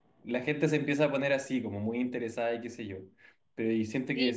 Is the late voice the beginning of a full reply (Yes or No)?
Yes